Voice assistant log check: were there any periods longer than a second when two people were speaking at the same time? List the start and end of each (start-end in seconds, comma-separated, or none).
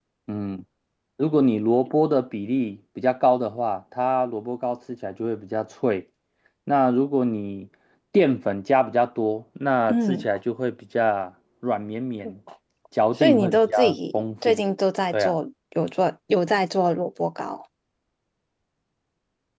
13.2-14.6